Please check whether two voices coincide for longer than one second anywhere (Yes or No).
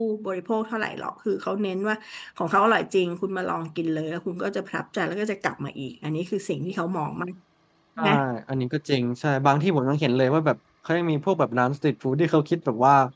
No